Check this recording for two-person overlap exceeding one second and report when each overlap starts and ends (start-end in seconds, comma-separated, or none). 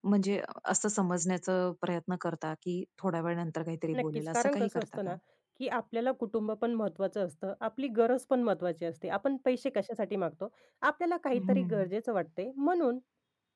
4.0-5.2